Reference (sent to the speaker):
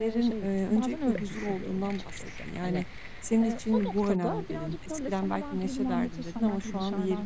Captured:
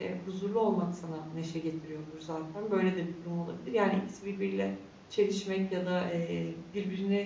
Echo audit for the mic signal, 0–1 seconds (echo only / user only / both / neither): user only